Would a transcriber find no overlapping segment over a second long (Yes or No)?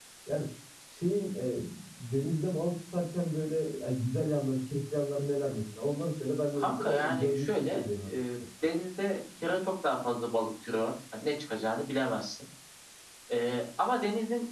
No